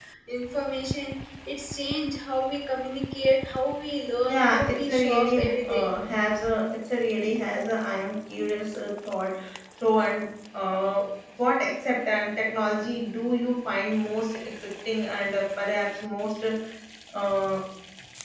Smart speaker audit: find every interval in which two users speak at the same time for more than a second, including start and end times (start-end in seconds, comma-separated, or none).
4.3-5.9